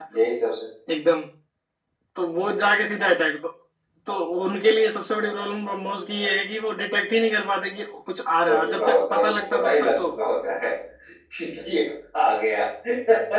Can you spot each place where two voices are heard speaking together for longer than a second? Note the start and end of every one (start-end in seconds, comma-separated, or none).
8.5-10.1